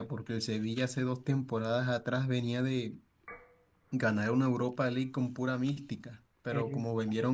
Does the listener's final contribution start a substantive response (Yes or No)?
No